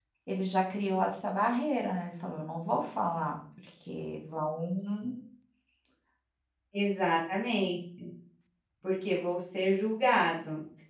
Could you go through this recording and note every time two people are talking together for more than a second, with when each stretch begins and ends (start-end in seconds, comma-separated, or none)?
none